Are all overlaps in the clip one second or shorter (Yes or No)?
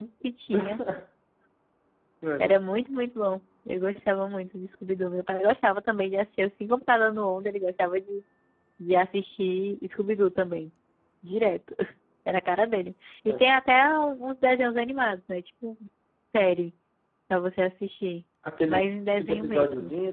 No